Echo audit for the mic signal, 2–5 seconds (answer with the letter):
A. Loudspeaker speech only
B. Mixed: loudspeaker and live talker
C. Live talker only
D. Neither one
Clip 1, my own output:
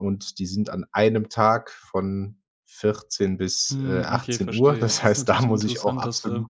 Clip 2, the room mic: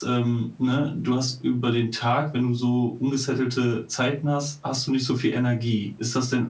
C